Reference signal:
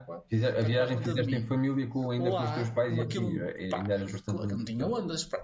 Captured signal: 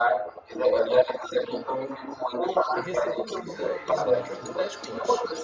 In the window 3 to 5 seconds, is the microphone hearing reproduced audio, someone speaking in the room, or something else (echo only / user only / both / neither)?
both